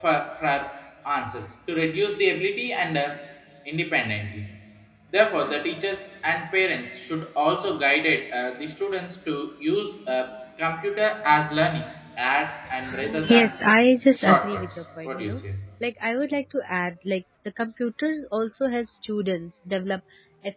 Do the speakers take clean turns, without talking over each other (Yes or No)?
No